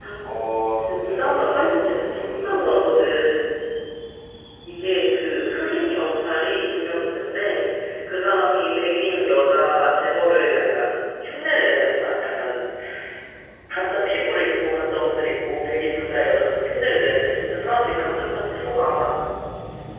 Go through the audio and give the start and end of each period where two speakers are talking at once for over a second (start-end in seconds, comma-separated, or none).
0.8-2.8